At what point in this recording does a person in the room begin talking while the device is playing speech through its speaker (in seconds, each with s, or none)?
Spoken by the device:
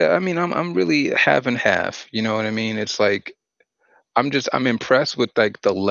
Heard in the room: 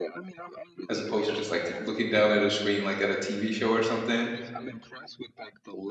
0.9 s